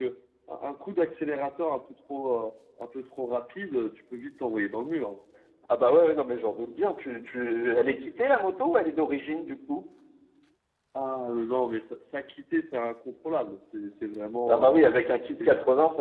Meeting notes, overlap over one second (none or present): none